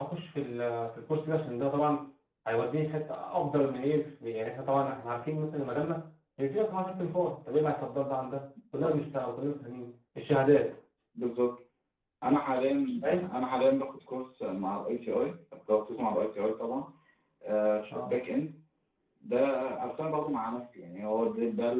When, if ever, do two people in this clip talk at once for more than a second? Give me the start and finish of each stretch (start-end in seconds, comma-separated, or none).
none